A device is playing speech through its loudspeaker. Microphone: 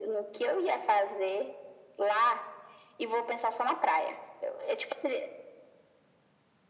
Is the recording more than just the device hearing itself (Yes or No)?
No